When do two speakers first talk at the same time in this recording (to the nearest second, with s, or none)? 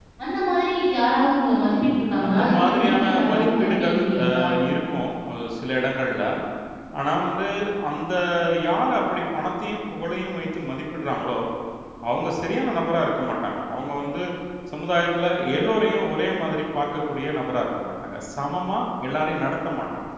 2 s